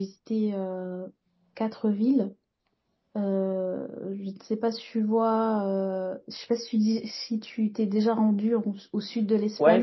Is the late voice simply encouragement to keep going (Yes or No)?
No